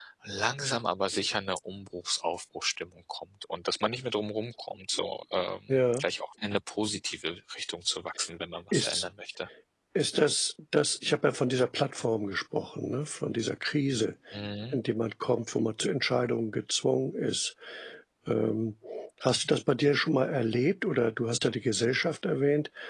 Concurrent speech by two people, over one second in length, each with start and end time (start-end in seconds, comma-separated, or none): none